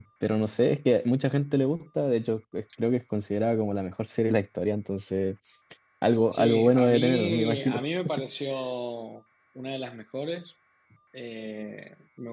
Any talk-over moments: Yes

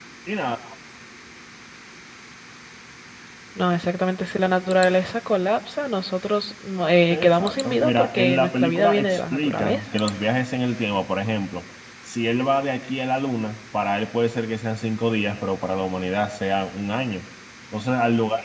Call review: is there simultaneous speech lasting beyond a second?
Yes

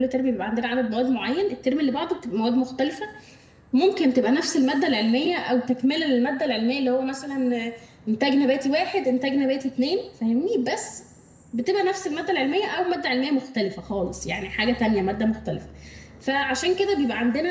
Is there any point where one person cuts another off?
No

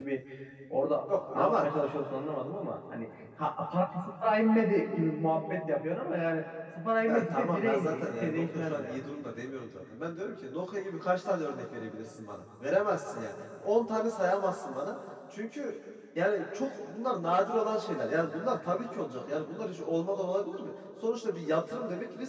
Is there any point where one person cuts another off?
Yes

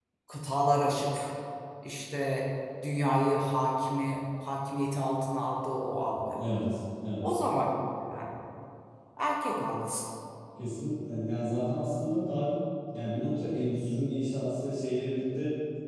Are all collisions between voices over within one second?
Yes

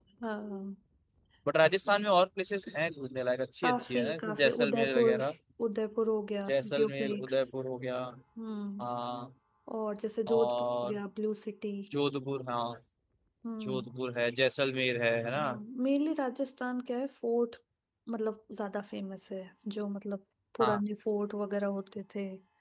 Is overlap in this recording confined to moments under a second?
No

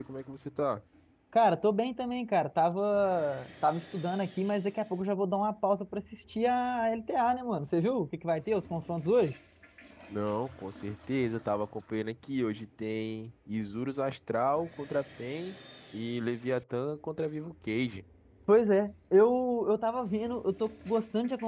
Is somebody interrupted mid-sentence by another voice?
No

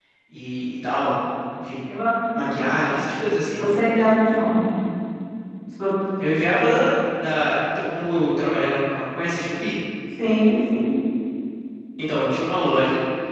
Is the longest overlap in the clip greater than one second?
No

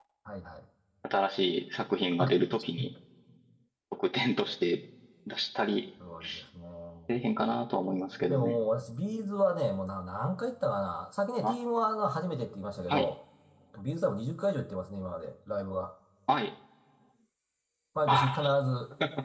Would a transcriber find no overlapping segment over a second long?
Yes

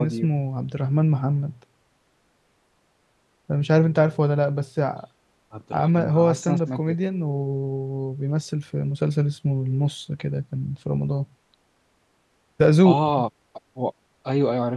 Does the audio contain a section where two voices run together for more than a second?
Yes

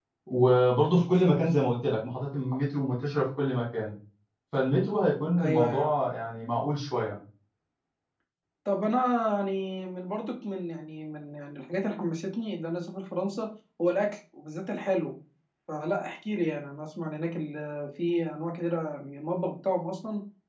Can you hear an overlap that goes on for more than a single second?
No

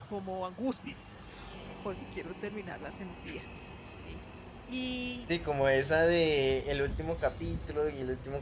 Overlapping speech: No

